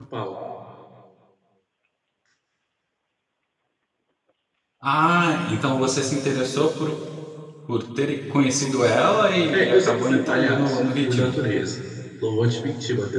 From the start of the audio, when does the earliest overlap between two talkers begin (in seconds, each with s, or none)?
9.5 s